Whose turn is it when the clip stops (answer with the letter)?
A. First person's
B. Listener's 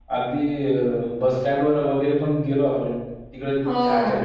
A